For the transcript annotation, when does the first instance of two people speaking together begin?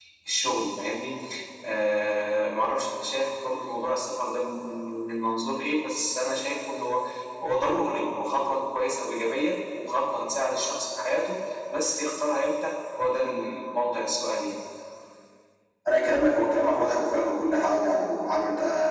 none

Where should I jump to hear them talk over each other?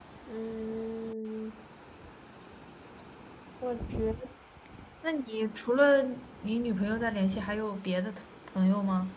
none

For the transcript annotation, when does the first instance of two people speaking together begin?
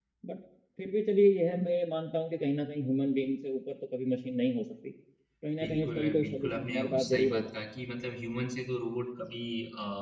5.6 s

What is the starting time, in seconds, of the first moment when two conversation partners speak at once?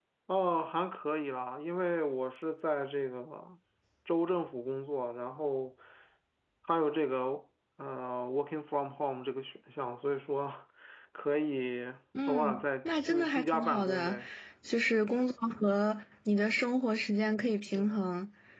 12.3 s

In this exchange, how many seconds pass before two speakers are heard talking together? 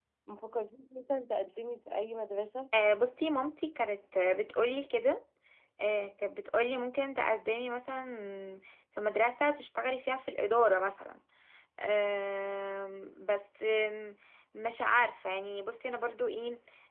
none

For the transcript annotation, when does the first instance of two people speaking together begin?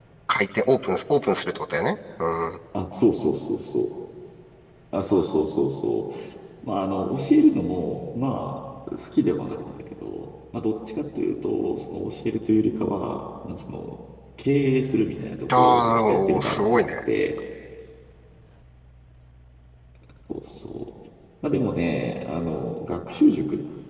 15.5 s

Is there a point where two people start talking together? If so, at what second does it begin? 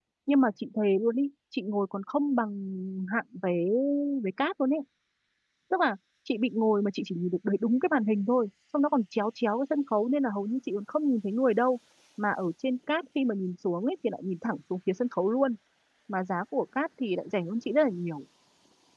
none

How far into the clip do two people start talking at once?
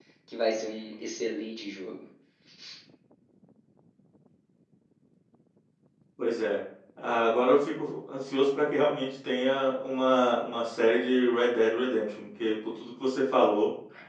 none

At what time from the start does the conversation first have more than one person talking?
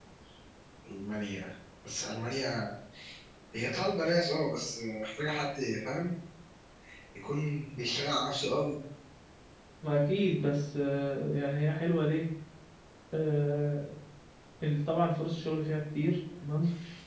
none

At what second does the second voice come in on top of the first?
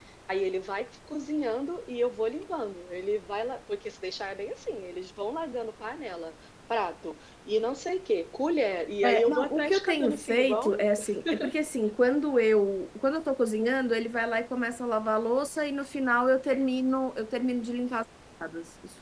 9.0 s

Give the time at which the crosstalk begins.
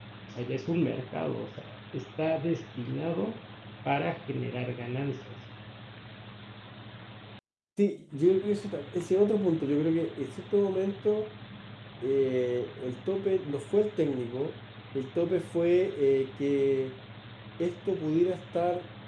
none

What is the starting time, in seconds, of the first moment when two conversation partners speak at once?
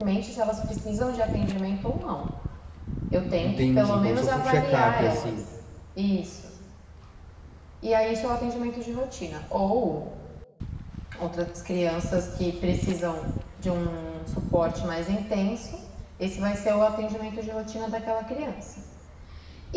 3.4 s

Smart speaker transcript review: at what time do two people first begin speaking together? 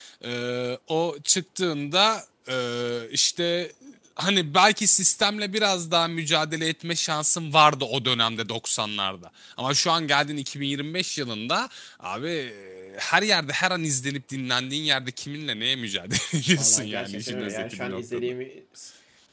16.6 s

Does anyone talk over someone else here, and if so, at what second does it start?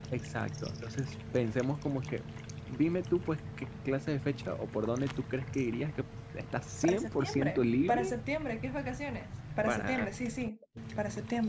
6.8 s

